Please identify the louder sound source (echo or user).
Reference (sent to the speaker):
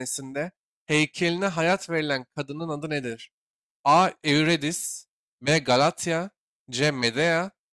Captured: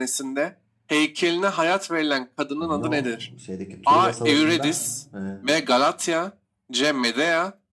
echo